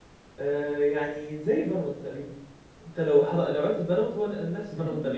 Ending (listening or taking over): taking over